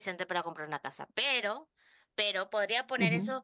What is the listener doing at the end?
listening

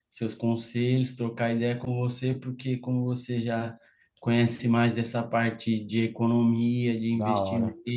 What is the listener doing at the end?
listening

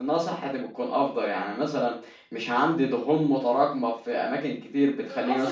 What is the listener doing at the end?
taking over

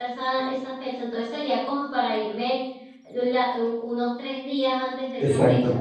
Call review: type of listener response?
taking over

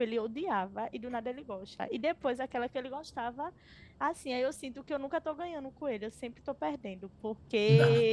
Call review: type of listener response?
listening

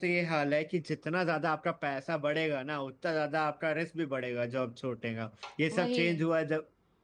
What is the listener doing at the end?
listening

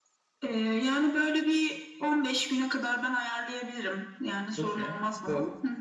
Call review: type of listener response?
taking over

